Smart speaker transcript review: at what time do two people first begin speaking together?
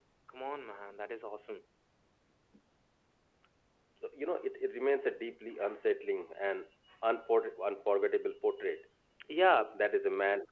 none

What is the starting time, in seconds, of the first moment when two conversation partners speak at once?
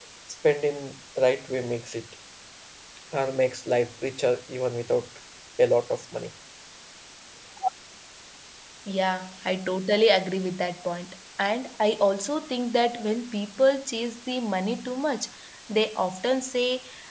none

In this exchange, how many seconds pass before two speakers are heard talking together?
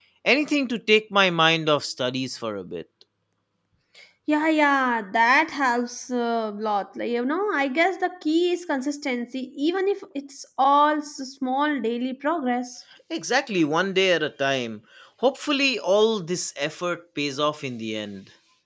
none

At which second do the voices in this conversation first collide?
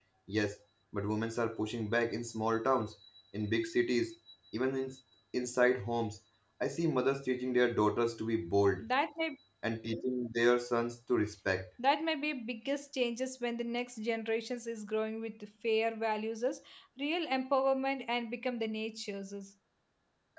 none

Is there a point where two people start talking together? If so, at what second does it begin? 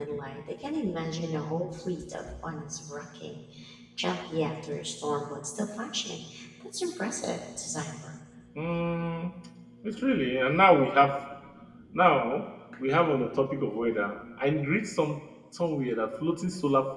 none

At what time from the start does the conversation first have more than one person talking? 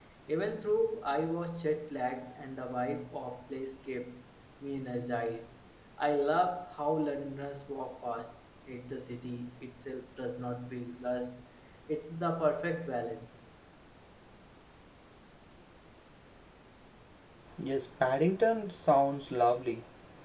none

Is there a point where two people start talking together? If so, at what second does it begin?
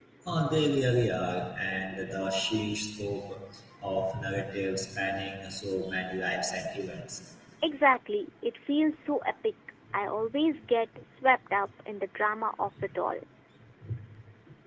none

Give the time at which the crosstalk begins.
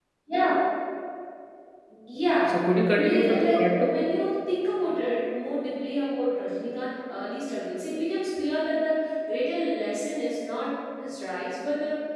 2.5 s

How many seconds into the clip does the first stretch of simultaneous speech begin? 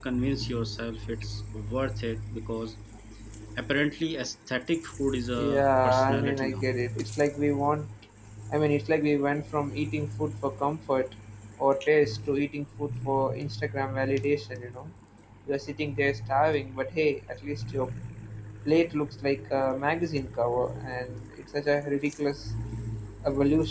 5.3 s

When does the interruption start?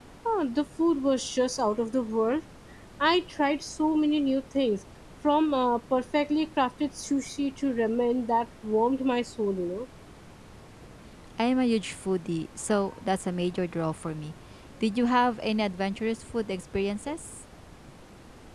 none

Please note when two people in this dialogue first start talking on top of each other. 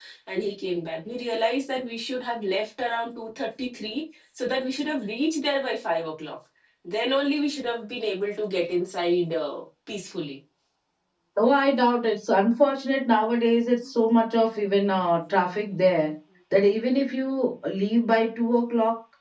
none

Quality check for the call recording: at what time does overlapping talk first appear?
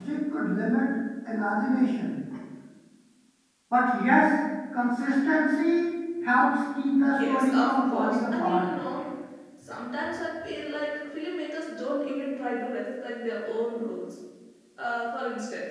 7.1 s

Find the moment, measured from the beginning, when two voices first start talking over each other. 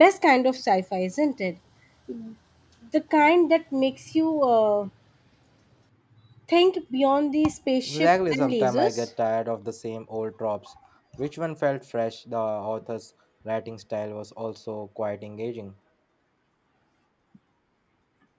7.9 s

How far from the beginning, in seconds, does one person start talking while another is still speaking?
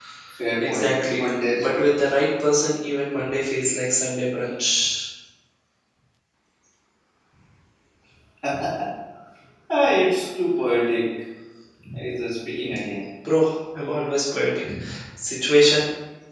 0.6 s

